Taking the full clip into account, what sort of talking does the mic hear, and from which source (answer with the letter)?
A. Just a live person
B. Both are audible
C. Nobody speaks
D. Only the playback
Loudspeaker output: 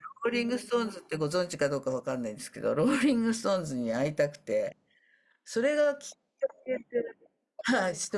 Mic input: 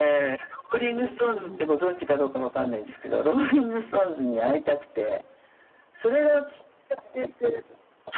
B